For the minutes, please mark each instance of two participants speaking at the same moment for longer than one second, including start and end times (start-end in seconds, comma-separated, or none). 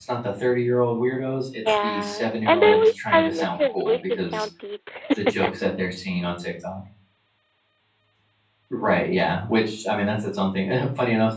1.8-4.4